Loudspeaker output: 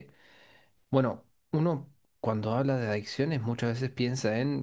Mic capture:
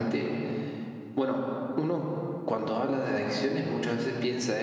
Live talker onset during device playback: none

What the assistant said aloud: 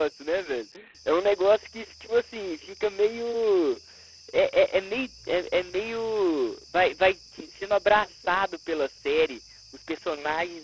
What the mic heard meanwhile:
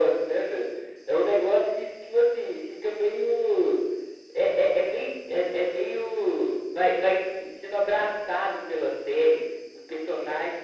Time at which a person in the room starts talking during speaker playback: none

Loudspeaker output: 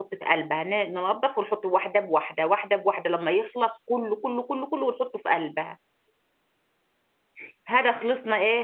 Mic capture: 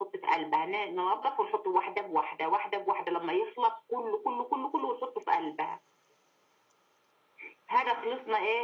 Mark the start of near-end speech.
none

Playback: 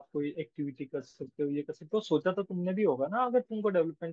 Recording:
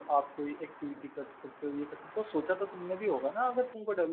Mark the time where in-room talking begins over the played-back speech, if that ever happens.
none

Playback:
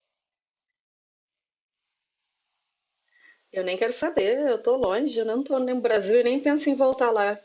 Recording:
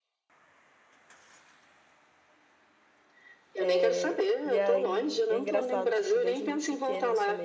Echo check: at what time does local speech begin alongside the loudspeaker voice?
3.6 s

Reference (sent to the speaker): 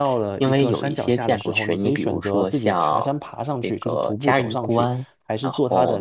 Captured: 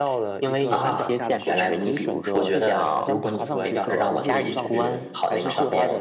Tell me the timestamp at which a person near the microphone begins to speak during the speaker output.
0.7 s

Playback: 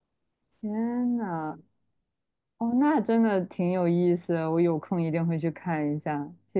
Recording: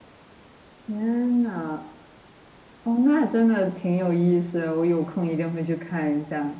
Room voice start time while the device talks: none

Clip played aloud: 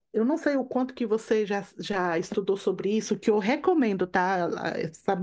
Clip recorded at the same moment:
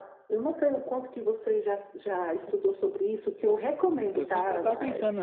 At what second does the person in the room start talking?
4.1 s

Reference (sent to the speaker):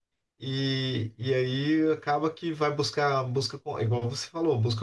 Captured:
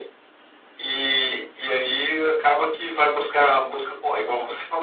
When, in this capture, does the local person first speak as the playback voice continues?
none

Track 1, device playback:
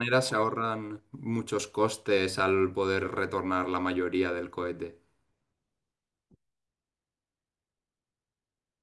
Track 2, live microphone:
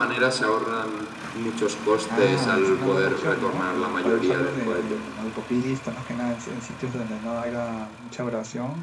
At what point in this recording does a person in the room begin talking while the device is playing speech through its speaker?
2.1 s

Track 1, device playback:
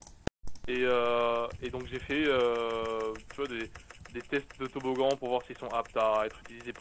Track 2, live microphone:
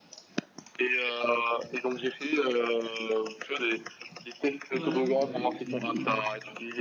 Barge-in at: 4.7 s

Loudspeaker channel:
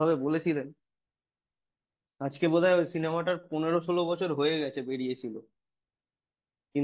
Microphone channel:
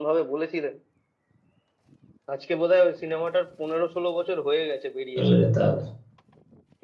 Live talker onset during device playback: 5.2 s

